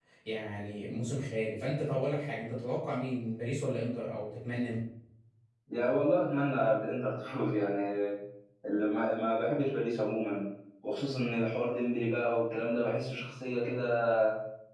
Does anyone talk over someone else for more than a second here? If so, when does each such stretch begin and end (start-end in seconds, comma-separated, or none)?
none